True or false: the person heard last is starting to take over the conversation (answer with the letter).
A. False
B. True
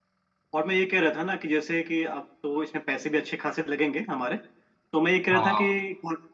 A